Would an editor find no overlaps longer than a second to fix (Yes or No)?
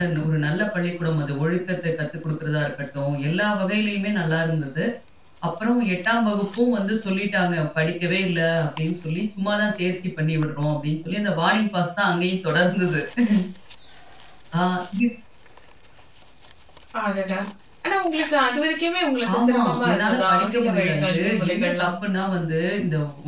No